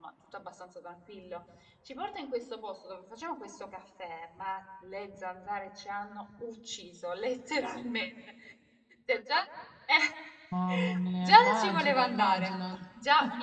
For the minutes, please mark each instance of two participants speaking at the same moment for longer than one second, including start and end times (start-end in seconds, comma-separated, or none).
11.2-12.5